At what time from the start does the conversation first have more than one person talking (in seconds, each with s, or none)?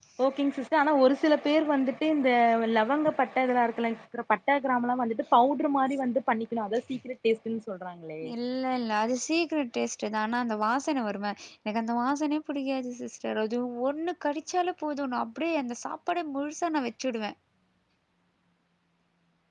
none